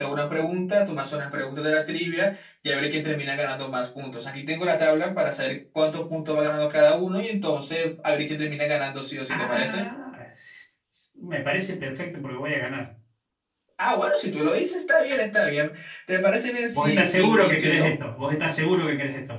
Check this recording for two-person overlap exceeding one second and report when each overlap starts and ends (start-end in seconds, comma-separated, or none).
16.7-18.0